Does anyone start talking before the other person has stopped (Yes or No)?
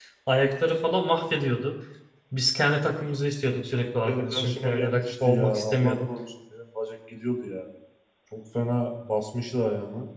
Yes